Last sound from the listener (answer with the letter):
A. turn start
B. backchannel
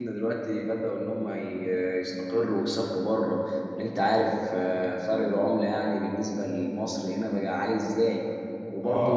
B